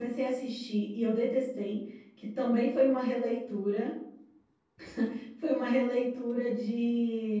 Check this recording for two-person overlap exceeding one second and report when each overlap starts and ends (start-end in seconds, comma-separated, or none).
none